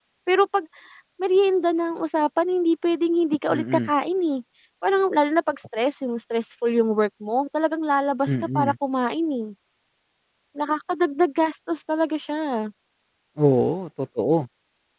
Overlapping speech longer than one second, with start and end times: none

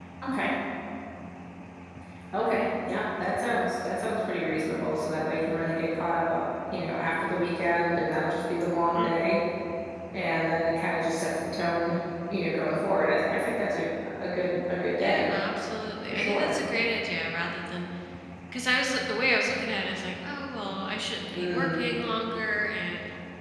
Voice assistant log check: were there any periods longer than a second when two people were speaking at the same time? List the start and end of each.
none

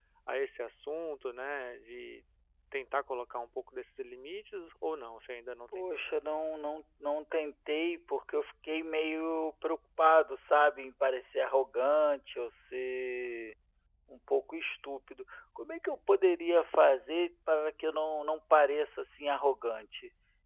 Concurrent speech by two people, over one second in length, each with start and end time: none

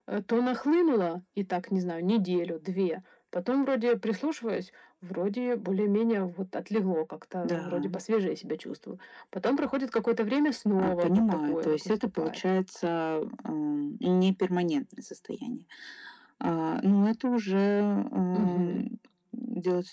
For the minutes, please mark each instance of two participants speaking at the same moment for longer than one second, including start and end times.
10.8-12.4

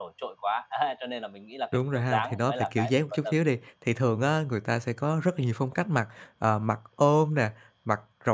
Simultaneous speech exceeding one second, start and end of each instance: 1.7-3.3

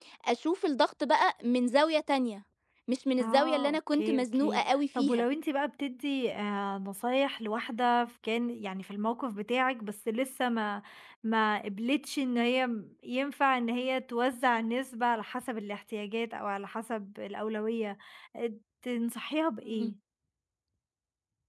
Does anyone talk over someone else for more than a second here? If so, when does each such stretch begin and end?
3.2-5.2

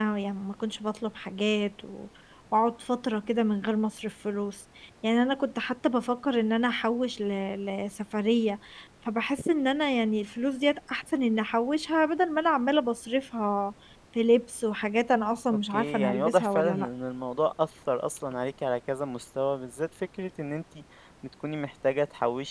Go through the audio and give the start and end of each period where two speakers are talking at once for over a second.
15.5-16.9

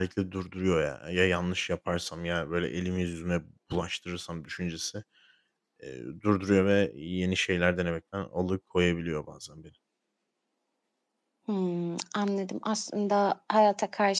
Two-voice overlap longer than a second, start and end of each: none

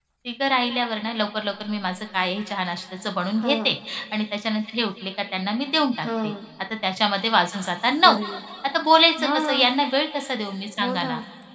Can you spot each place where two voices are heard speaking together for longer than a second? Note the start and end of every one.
none

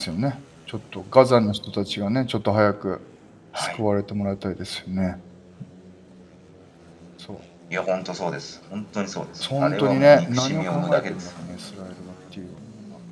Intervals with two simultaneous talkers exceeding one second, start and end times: 9.4-11.5

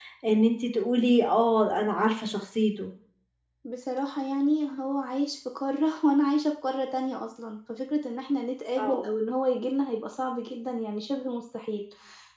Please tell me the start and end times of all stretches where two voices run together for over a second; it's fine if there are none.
none

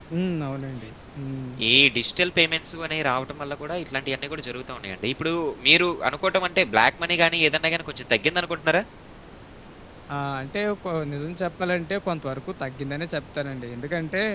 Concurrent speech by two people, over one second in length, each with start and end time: none

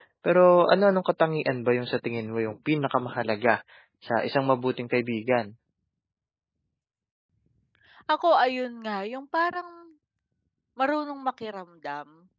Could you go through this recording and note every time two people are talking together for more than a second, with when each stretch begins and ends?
none

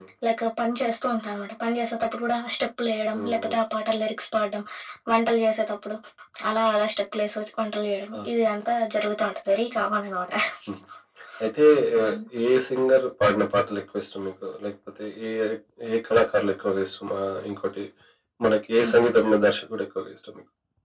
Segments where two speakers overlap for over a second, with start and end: none

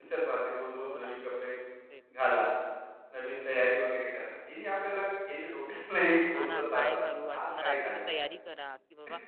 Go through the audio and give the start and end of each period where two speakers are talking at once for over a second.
6.3-8.1

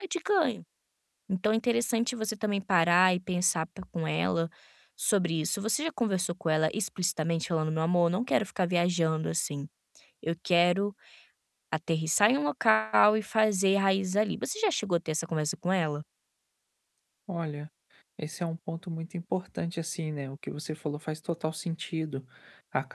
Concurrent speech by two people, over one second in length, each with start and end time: none

